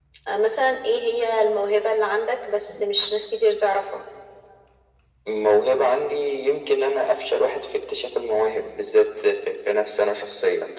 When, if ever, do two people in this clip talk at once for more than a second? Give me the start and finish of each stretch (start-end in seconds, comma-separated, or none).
none